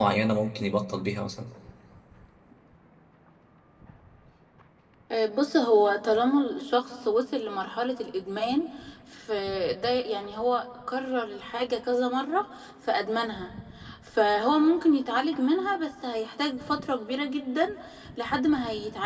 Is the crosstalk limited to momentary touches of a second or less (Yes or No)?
Yes